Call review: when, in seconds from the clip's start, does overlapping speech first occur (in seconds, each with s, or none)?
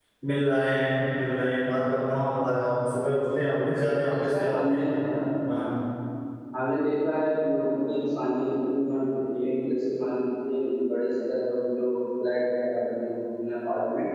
3.5 s